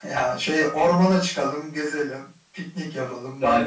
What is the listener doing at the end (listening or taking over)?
taking over